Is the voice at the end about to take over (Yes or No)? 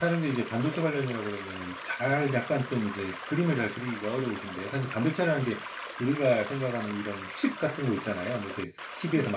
No